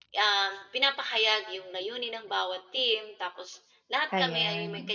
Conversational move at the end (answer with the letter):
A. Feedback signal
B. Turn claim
A